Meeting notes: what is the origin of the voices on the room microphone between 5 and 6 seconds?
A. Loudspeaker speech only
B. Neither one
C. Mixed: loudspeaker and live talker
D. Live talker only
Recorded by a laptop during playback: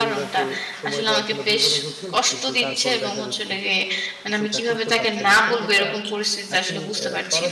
C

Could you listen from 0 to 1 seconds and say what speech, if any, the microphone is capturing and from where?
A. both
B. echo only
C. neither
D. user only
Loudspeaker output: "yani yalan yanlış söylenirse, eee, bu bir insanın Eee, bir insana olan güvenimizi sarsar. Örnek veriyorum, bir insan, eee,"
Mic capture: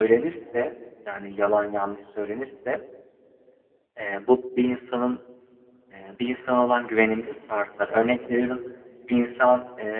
B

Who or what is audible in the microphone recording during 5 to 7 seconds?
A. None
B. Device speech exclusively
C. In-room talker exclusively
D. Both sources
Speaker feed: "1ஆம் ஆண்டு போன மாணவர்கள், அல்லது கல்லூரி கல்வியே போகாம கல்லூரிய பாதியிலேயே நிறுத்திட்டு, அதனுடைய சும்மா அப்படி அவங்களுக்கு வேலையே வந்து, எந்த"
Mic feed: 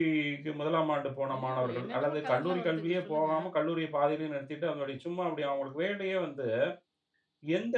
B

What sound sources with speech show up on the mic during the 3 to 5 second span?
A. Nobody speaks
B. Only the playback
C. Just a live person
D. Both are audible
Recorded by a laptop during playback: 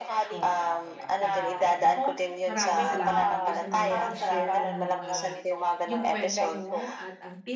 D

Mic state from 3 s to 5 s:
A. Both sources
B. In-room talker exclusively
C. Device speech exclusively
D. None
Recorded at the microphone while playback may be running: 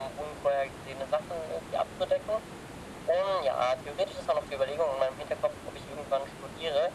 C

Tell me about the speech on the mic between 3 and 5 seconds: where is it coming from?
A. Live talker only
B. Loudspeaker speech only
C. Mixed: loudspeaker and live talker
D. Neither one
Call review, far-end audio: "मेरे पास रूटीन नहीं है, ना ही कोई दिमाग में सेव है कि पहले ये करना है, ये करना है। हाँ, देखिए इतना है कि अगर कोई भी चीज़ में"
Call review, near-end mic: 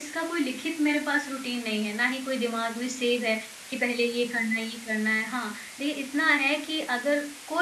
B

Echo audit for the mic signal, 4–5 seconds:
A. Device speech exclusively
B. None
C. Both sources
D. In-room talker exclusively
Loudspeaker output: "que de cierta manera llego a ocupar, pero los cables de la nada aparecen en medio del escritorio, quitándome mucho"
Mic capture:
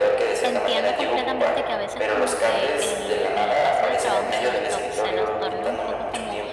C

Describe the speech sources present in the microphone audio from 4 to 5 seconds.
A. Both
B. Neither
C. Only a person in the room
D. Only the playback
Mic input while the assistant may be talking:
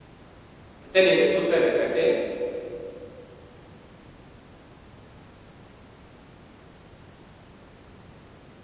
B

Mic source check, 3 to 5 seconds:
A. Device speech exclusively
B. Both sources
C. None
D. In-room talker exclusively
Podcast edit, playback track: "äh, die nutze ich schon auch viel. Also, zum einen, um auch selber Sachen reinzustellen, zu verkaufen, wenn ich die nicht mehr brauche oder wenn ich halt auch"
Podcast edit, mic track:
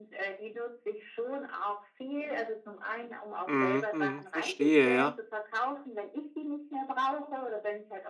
B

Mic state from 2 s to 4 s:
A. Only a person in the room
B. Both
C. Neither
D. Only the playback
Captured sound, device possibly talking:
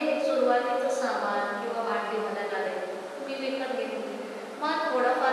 D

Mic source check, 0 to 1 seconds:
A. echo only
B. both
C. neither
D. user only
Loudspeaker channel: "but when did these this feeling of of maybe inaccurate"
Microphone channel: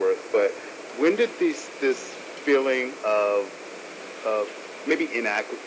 A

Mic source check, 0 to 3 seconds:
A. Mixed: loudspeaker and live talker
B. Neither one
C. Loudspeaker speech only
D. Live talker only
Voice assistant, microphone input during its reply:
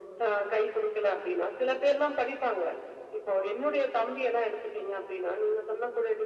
C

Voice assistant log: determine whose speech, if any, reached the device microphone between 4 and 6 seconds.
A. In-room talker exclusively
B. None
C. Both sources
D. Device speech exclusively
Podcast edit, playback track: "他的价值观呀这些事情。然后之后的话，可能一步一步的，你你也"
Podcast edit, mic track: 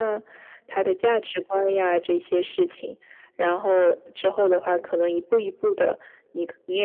D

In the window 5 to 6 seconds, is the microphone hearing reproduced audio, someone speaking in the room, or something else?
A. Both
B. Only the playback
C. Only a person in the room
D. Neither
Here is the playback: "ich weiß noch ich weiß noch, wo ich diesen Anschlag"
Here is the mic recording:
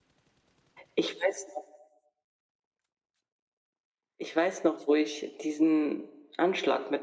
B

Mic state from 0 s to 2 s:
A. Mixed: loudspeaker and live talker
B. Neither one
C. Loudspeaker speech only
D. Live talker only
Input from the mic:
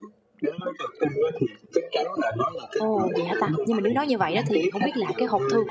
C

